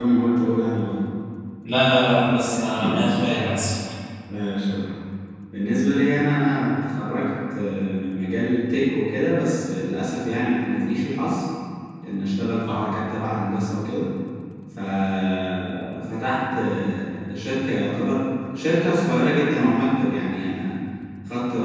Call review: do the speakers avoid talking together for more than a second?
Yes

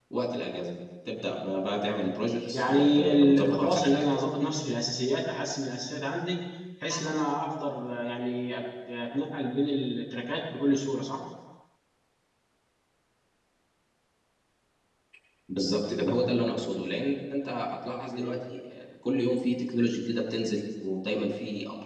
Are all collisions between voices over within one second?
No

